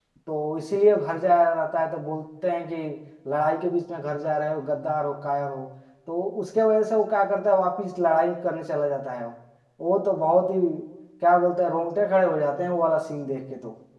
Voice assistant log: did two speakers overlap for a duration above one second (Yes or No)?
No